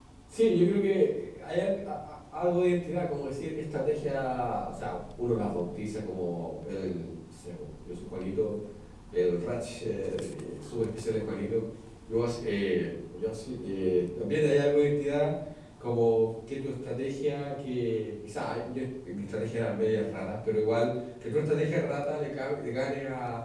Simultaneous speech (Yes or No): No